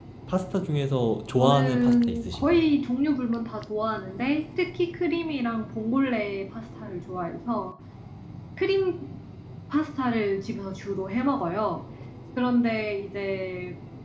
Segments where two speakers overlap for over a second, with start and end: 1.4-2.7

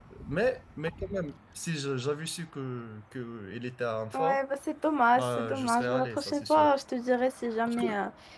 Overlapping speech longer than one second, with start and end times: 5.1-6.7

